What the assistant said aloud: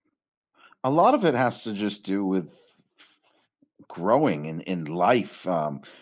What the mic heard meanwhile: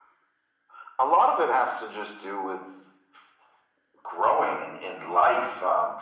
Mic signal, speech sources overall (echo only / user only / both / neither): echo only